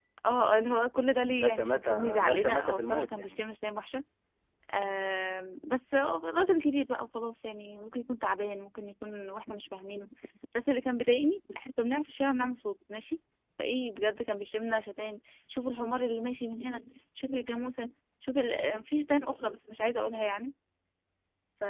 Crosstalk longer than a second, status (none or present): present